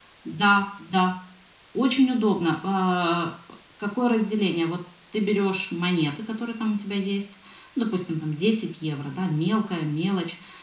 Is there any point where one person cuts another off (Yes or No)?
No